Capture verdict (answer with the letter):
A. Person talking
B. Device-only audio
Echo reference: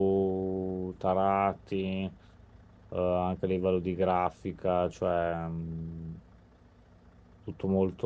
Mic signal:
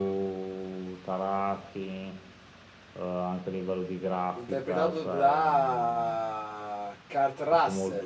A